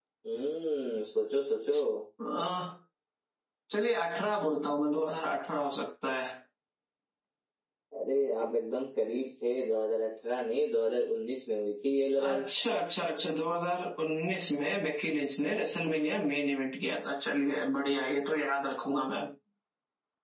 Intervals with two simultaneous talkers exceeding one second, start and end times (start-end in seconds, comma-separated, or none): none